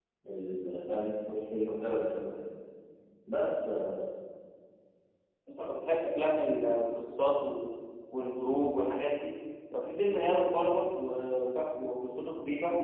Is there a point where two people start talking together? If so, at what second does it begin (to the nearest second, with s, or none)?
none